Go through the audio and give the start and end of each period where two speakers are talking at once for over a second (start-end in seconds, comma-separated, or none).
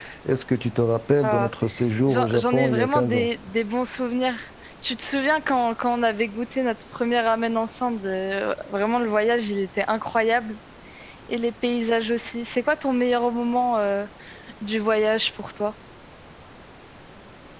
2.1-3.3